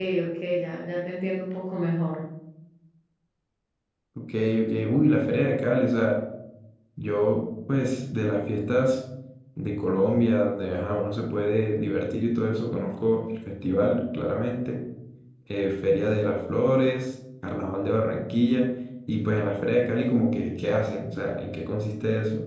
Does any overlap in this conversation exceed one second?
No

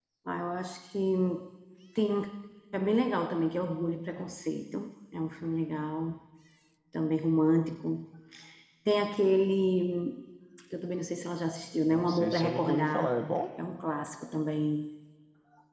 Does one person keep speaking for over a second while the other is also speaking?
Yes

